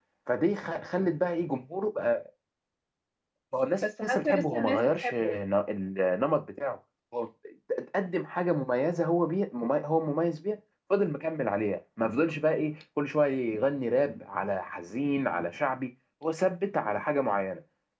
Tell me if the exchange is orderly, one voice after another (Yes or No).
No